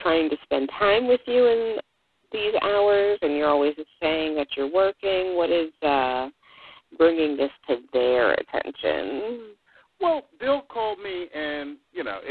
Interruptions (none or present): none